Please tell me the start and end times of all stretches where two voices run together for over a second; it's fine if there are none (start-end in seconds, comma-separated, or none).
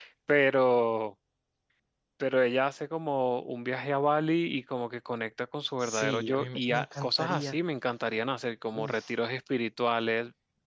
6.0-7.5